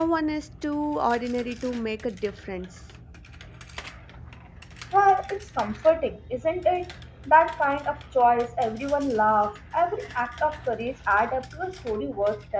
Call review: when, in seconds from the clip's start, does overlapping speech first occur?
none

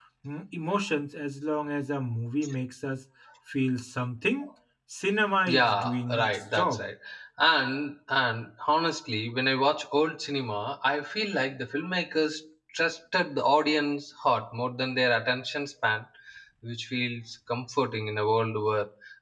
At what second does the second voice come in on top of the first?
5.5 s

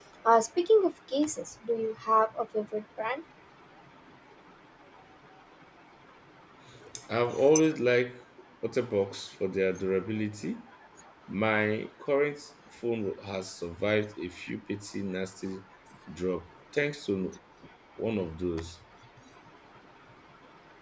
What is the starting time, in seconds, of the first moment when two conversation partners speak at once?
none

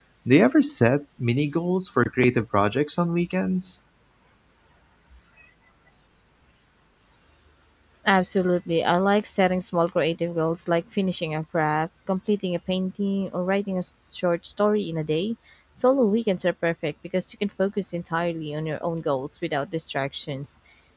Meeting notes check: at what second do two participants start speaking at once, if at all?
none

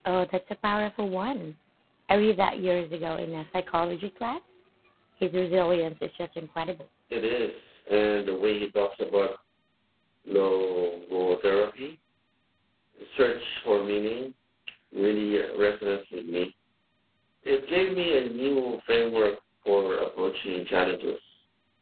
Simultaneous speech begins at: none

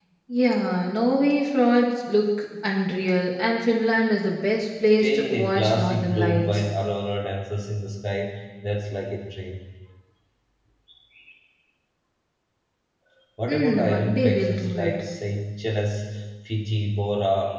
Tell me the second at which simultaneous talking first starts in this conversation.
5.0 s

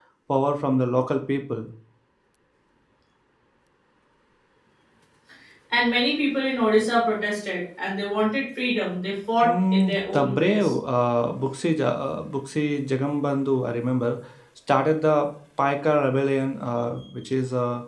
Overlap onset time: 9.4 s

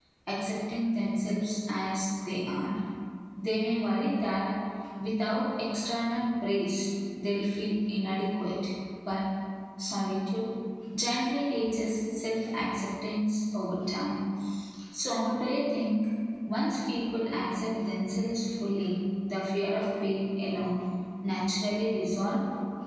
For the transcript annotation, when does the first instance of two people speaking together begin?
none

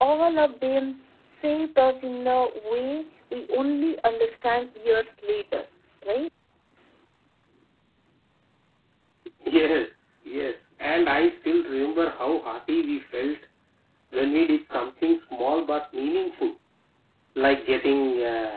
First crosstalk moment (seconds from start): none

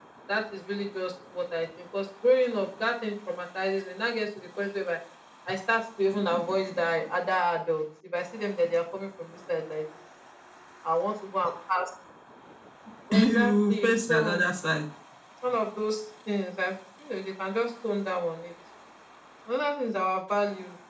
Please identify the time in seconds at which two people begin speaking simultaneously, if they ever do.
13.1 s

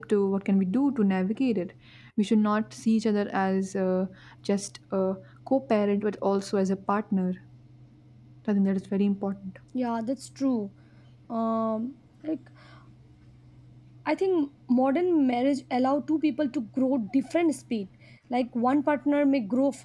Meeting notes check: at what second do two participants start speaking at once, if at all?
none

